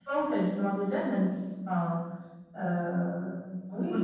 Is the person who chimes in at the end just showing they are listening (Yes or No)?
No